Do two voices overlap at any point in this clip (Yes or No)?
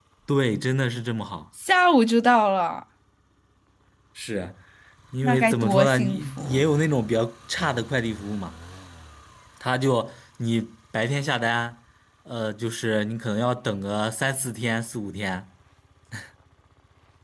Yes